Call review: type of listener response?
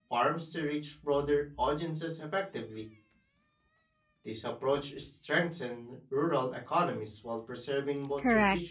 taking over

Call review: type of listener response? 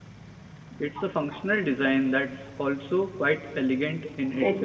taking over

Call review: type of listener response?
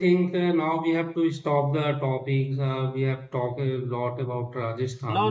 taking over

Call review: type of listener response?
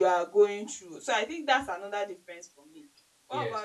taking over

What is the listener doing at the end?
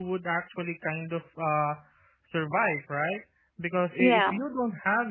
listening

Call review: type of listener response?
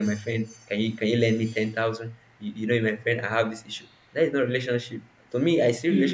listening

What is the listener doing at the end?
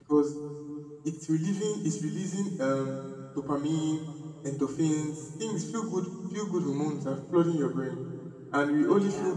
listening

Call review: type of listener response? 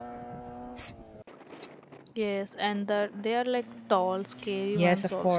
taking over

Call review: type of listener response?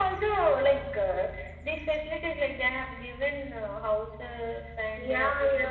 taking over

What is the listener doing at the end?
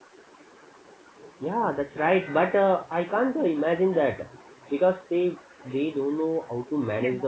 taking over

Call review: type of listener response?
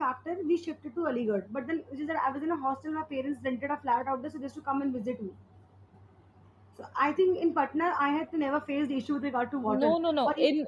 taking over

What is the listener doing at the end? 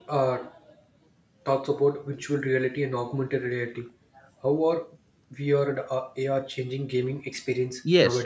taking over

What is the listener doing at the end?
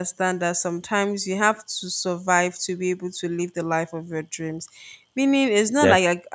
listening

